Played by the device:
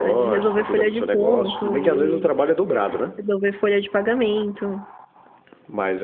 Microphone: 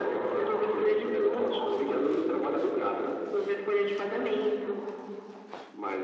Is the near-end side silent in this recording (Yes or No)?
Yes